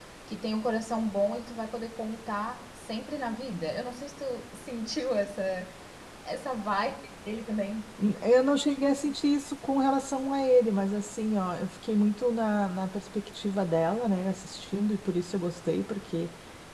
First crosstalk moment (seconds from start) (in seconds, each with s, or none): none